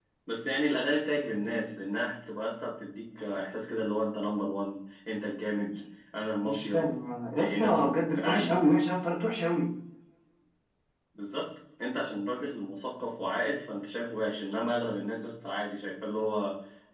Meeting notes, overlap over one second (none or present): present